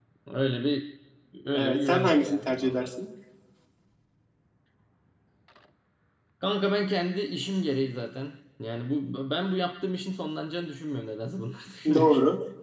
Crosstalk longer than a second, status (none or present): present